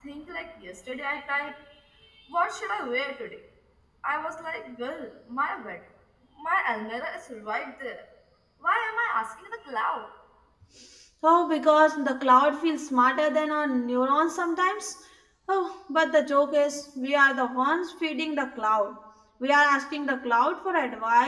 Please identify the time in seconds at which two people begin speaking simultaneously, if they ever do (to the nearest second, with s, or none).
none